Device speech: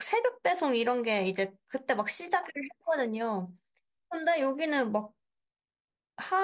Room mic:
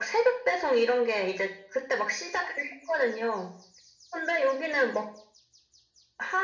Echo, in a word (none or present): present